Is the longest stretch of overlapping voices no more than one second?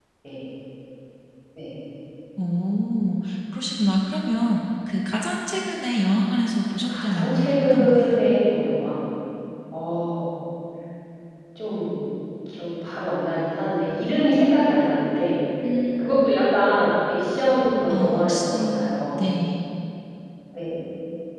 No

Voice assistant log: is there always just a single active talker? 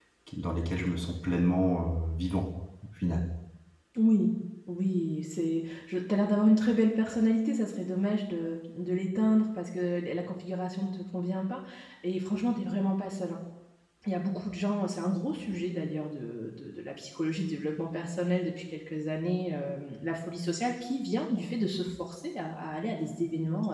Yes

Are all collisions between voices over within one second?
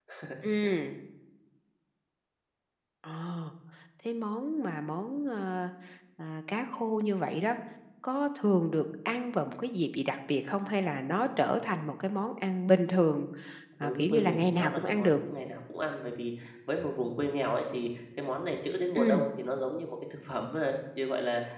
No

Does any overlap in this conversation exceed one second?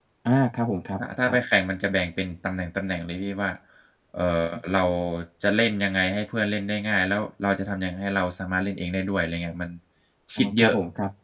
No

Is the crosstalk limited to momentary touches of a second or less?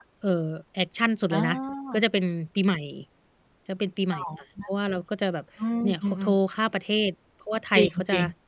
Yes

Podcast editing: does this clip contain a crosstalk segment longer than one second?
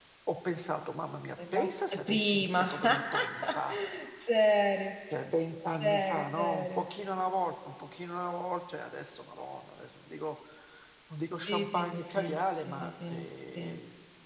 Yes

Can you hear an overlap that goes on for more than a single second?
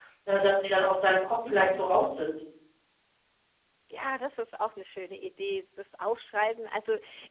No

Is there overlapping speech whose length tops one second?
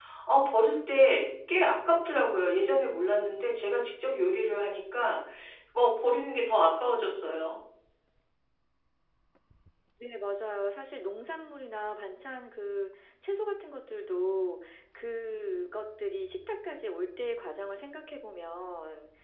No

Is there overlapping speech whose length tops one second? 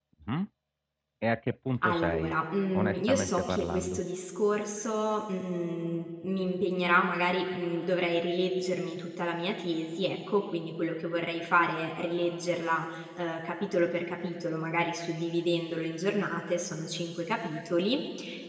Yes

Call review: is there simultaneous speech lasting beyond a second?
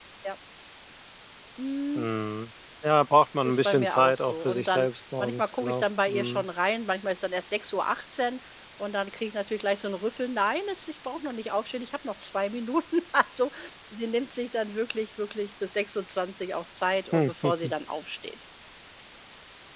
Yes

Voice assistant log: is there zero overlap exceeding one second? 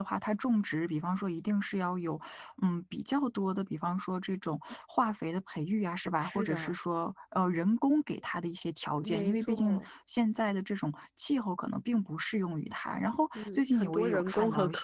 No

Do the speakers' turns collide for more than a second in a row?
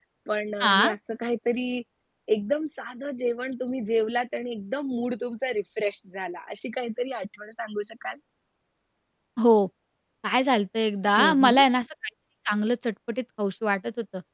No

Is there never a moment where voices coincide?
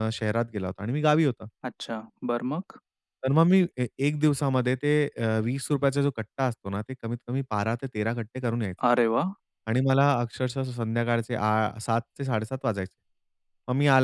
Yes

